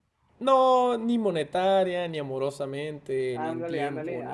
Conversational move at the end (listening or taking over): taking over